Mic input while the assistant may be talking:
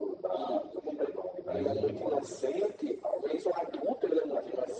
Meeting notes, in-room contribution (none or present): present